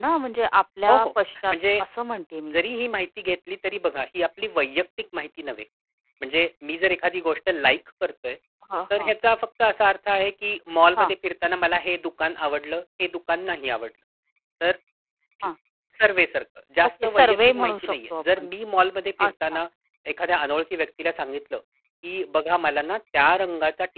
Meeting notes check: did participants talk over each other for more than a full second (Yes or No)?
Yes